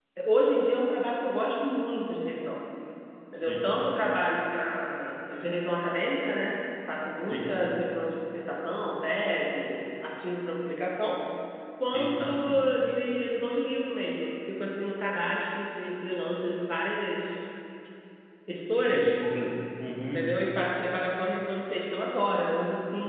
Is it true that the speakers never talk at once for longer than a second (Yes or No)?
Yes